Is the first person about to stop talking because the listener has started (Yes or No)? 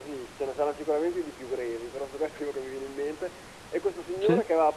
No